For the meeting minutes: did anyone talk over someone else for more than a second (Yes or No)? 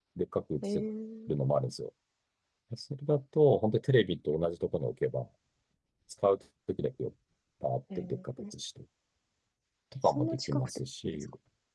Yes